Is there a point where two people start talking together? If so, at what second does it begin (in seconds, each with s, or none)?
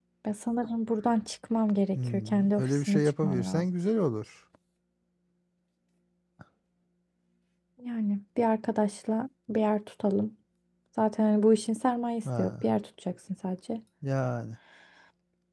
1.9 s